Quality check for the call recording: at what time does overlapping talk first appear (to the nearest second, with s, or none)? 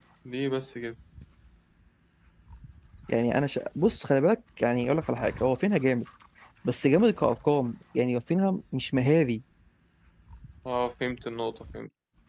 none